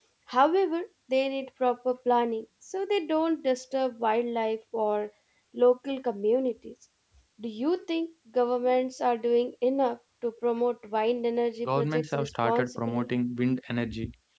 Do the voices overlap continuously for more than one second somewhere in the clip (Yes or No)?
Yes